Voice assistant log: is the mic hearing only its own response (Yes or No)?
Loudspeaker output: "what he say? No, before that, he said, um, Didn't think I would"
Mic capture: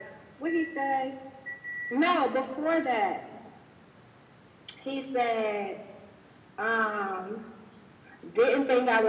Yes